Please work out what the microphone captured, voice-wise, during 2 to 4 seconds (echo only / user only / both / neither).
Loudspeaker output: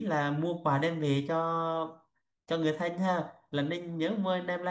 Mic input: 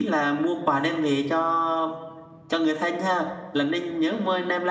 echo only